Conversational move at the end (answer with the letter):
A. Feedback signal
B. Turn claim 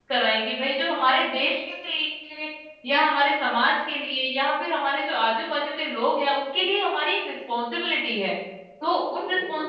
A